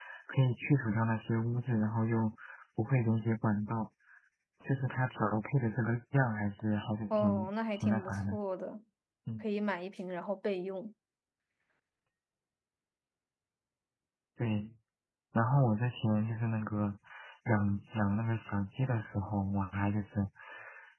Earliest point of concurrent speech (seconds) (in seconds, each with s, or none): 7.1 s